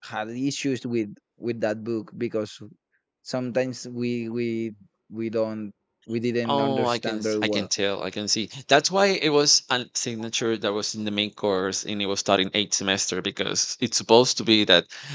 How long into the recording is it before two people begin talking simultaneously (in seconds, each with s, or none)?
6.5 s